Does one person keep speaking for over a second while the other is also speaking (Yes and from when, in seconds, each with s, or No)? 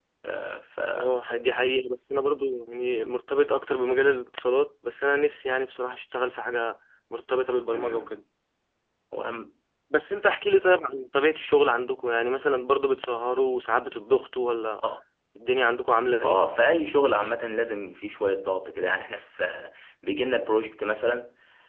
No